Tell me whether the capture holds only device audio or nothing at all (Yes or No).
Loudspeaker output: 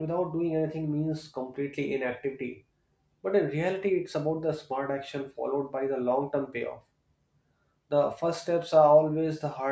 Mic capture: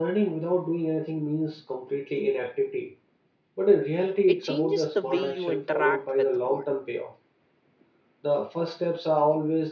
No